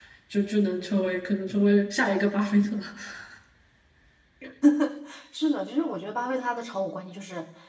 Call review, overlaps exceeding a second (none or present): none